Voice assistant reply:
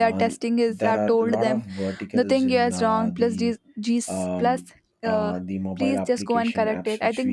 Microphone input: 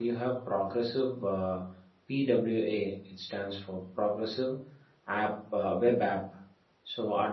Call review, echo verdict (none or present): none